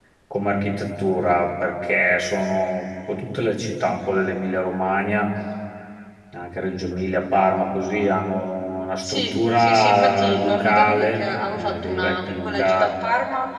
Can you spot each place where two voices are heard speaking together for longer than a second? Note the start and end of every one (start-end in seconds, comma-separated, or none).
9.0-12.9